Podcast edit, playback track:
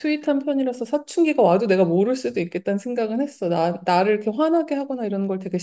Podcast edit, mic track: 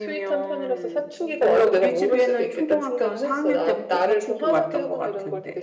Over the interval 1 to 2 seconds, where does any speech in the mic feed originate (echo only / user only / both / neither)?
both